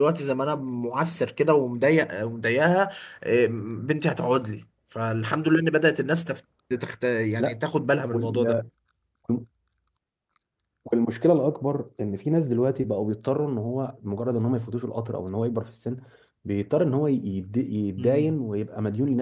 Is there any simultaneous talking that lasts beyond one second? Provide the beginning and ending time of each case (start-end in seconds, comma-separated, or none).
none